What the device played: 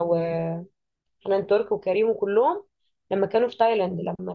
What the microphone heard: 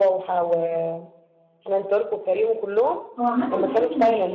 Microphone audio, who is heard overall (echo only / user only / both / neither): both